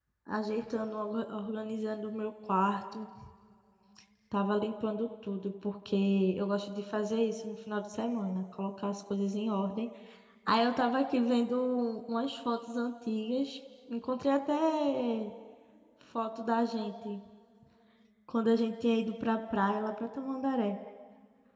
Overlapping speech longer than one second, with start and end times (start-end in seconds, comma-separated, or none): none